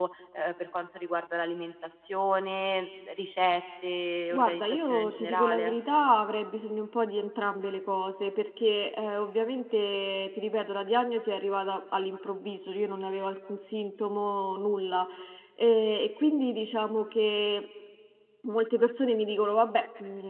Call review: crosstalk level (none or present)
present